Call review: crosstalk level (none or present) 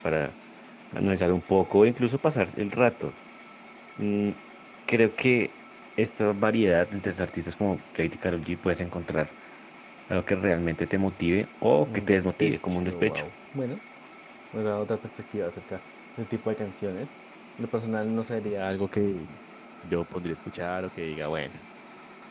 present